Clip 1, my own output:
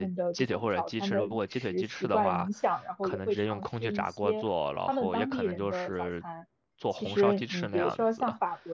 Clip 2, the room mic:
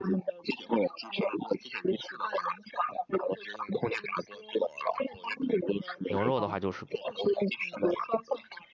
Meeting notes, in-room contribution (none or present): present